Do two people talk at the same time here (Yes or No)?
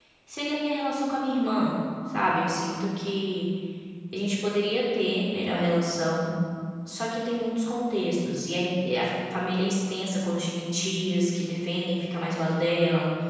No